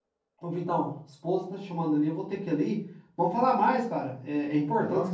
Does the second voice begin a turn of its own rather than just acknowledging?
No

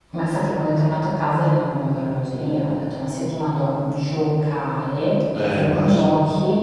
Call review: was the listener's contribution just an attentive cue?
Yes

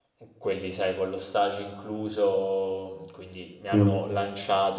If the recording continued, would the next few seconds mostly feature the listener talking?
No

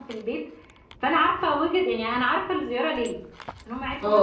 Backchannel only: Yes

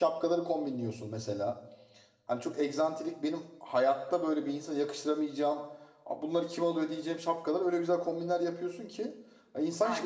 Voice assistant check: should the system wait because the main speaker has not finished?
No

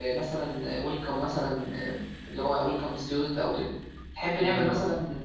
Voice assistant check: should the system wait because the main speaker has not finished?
Yes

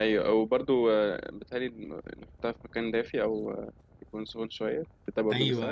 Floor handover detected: Yes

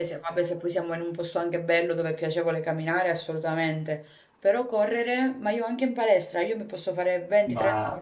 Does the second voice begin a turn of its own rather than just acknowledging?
No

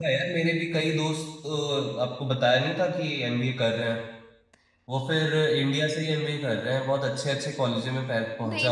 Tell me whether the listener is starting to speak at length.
Yes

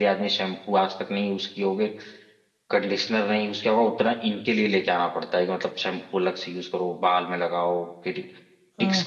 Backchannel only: Yes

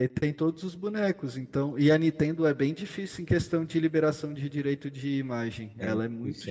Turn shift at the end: Yes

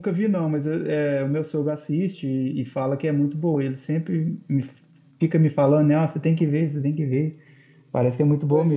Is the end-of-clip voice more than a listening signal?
Yes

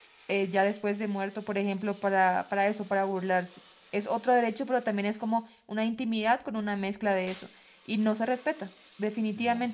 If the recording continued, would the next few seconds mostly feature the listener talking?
No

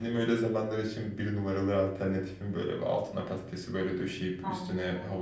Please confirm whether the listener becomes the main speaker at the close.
No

